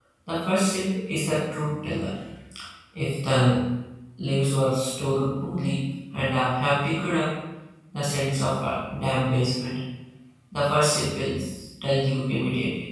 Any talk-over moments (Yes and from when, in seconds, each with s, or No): No